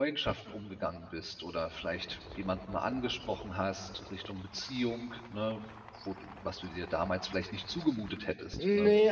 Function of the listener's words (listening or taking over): taking over